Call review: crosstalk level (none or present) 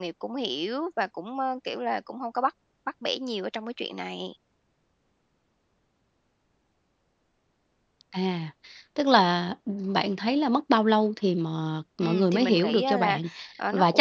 present